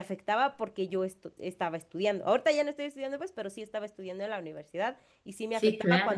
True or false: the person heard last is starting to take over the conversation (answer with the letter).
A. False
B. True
A